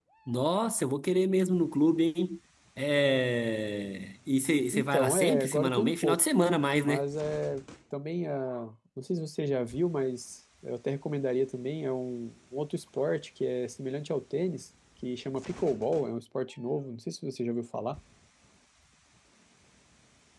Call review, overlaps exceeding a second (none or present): present